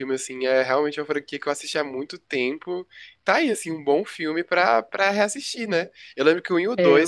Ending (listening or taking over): listening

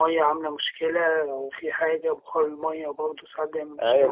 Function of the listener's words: taking over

